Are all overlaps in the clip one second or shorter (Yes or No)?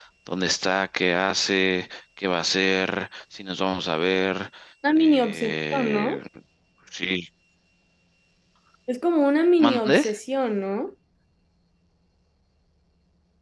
No